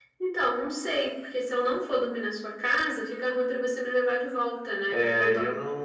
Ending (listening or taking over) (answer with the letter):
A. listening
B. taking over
B